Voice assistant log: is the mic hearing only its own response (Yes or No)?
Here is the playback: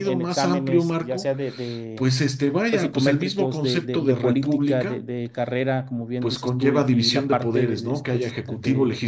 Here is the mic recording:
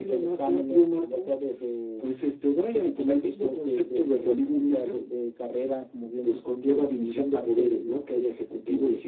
Yes